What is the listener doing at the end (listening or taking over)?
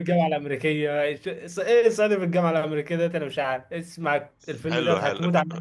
taking over